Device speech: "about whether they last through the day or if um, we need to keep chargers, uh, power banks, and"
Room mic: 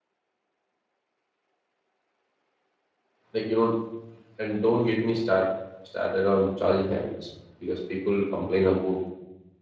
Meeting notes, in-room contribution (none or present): present